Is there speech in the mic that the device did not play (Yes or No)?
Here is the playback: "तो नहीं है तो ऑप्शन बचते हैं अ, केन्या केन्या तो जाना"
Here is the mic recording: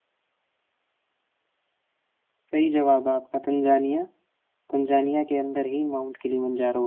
Yes